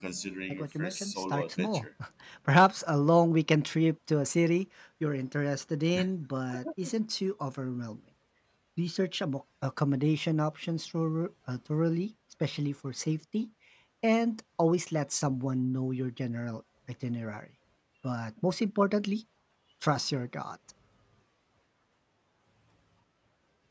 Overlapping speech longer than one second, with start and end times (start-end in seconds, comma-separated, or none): 0.5-1.9